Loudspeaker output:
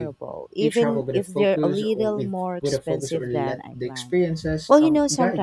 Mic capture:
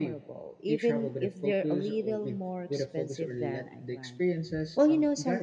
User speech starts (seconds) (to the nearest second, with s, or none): none